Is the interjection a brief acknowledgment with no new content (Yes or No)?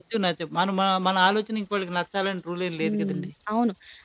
No